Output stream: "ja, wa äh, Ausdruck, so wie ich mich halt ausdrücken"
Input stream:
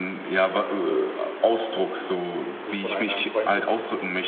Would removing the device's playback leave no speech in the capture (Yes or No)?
No